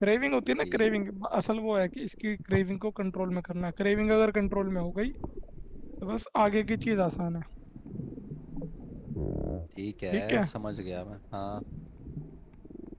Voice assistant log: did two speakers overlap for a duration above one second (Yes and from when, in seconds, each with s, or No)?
No